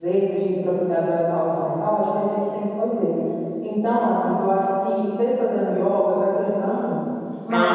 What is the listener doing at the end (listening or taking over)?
listening